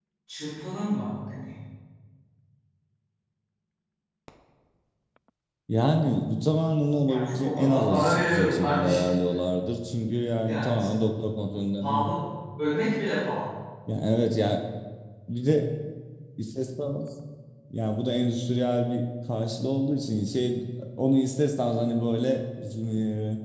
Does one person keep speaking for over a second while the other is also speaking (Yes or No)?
Yes